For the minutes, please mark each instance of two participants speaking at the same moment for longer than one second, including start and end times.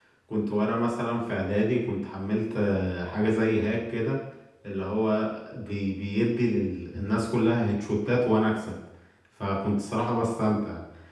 none

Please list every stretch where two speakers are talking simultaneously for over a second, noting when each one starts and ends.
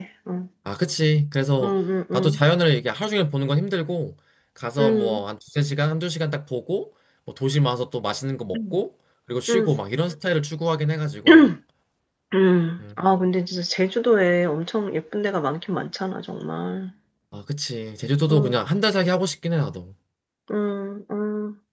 none

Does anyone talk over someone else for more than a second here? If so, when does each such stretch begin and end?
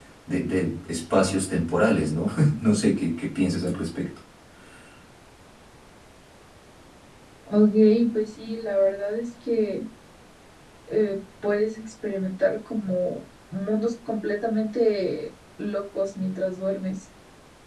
none

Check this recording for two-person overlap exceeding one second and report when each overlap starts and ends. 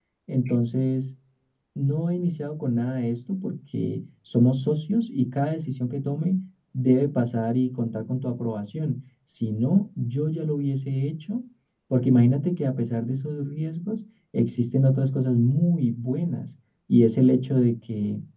none

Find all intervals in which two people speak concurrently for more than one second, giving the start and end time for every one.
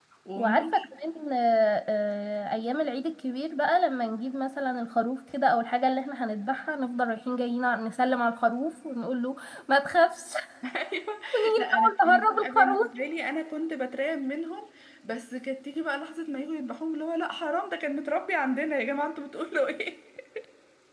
11.6-12.9

